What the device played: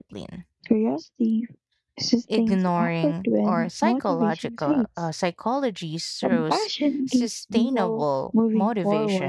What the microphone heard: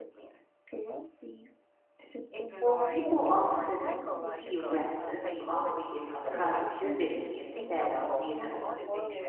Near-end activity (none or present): present